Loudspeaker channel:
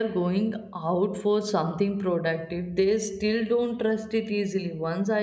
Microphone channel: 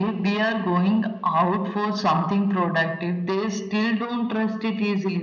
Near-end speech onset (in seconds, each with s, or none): none